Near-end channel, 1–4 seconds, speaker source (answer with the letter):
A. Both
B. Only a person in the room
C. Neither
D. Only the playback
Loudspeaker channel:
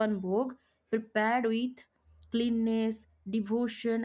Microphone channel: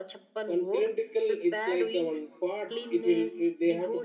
A